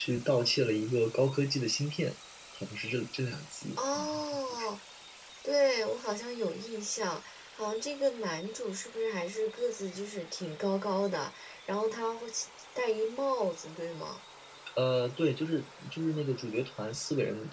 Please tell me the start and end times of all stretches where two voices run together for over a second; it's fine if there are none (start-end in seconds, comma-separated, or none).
none